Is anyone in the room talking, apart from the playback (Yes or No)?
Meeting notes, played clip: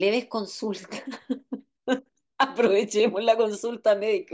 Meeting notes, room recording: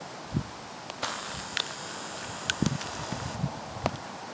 No